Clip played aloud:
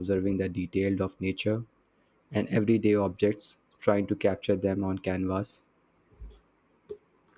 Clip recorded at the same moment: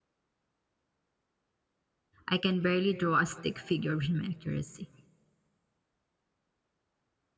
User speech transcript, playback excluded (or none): I can barely draw a stick figure with my accuracy.